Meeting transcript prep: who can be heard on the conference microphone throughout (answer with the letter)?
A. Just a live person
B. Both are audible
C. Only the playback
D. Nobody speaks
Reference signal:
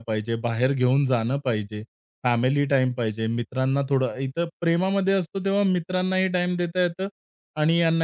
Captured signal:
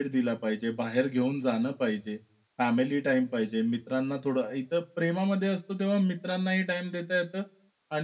C